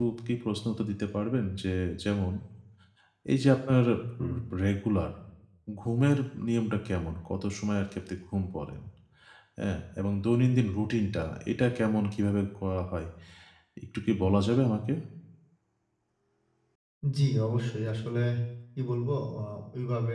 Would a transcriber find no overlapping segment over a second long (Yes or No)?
Yes